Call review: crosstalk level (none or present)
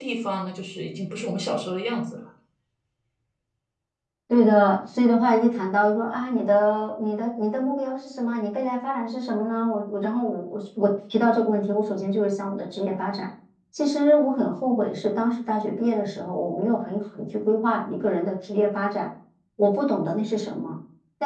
none